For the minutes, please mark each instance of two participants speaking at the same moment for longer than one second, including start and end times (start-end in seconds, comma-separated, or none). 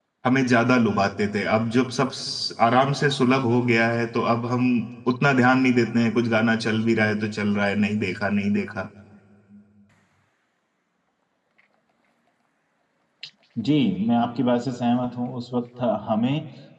none